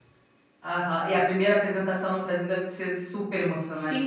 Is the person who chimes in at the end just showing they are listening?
No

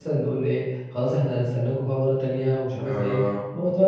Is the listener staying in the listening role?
Yes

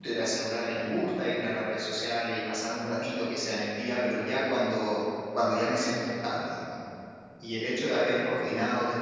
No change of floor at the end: Yes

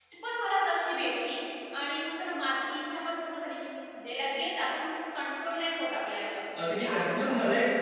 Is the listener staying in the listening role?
No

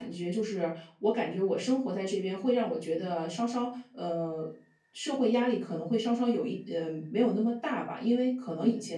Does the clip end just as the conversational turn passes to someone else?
No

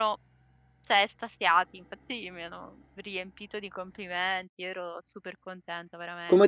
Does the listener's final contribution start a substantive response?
Yes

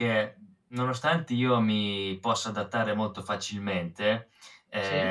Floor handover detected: No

